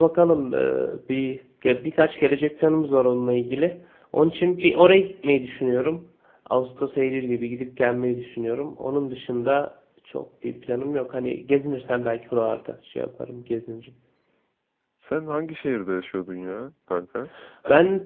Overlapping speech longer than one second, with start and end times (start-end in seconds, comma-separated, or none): none